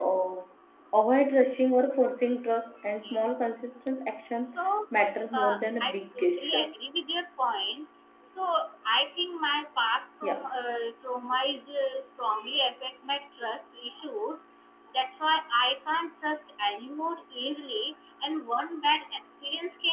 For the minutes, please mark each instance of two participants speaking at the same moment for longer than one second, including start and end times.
5.3-6.9

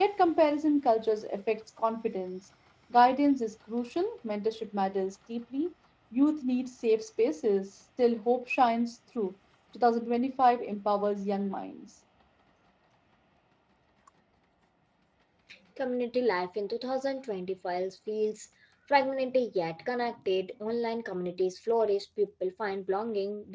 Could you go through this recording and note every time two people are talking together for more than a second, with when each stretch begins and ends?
none

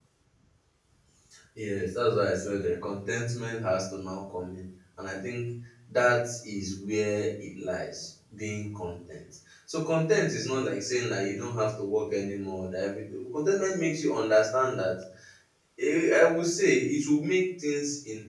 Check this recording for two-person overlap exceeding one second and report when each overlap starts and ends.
none

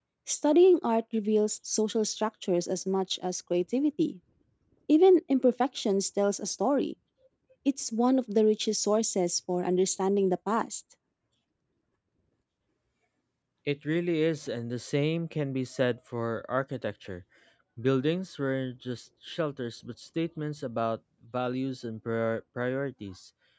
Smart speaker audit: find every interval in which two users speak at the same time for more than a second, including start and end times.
none

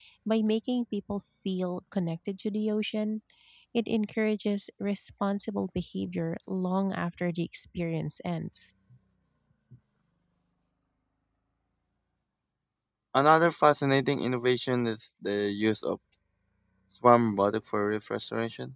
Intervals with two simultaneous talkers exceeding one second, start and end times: none

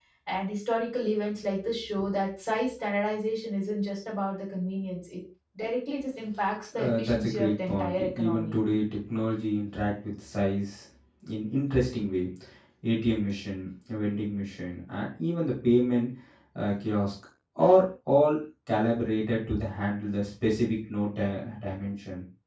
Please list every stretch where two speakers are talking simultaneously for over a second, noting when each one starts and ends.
6.8-8.6

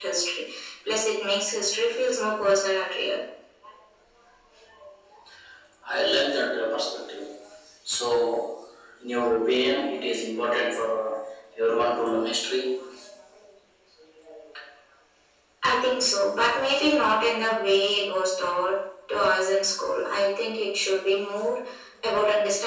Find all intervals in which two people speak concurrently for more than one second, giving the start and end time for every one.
none

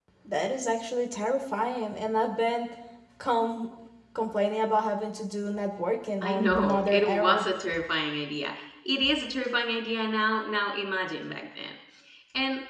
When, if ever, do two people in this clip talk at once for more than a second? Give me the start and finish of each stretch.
6.2-7.5

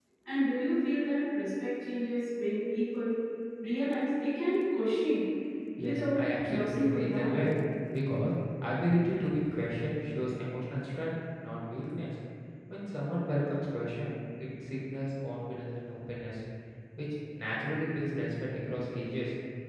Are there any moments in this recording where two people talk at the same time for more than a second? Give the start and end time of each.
5.8-7.5

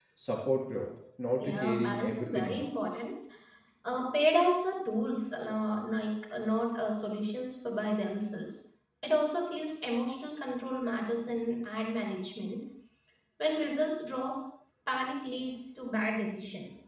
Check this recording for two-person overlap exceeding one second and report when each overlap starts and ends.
1.4-2.7

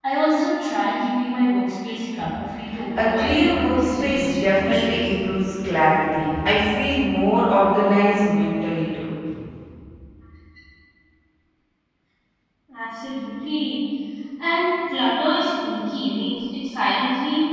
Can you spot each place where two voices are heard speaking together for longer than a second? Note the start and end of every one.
3.0-5.1

